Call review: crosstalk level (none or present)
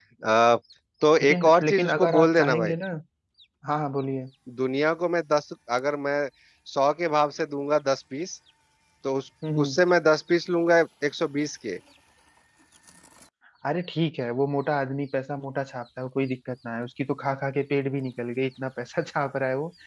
present